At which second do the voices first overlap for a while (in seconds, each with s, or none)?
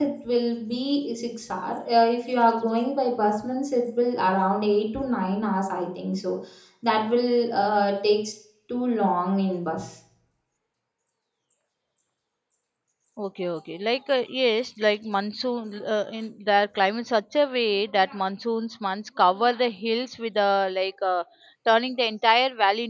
none